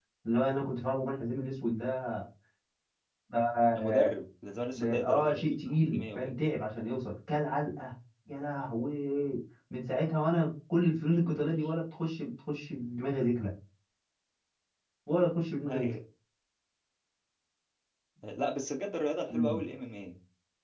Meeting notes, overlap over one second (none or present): present